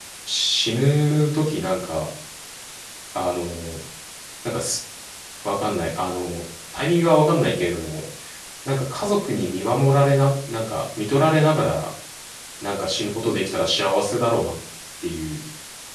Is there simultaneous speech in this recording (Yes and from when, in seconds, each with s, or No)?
No